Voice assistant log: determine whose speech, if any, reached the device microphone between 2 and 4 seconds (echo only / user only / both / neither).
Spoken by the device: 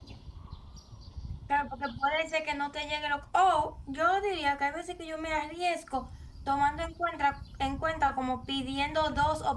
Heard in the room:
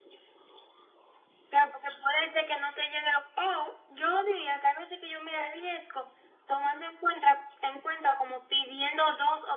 echo only